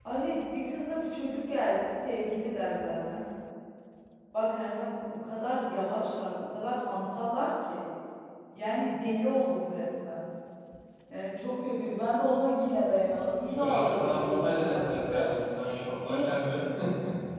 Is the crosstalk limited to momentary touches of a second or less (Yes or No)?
No